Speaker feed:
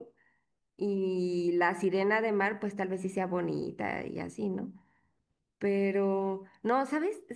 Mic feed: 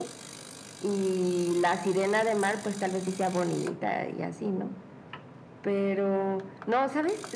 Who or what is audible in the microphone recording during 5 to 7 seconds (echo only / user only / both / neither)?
echo only